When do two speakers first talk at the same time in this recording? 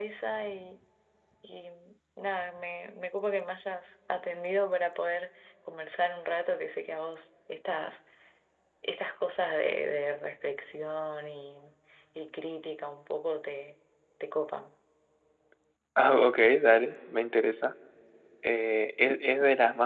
none

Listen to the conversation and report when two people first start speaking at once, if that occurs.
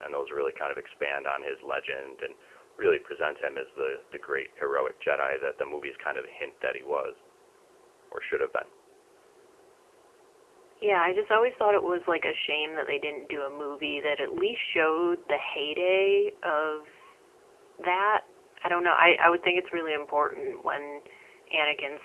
none

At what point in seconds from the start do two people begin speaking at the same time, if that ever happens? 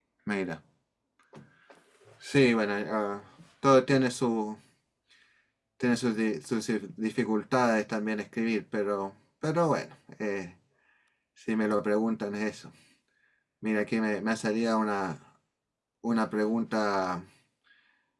none

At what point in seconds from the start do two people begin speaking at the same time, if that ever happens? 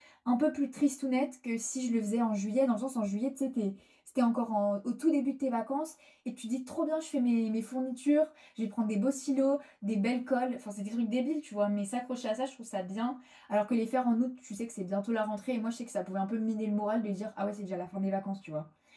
none

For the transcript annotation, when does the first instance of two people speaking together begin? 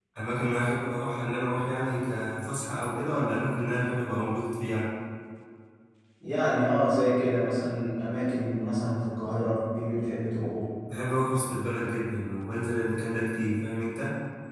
none

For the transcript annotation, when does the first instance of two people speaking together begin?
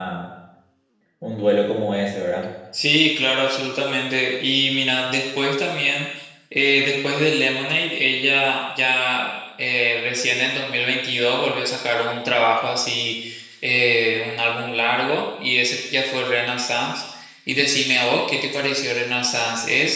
none

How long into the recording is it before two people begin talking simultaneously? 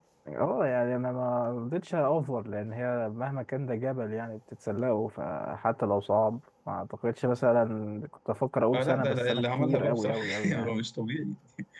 8.7 s

